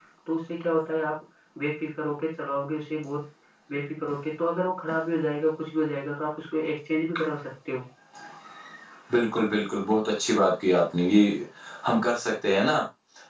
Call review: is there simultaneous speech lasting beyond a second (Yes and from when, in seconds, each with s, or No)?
No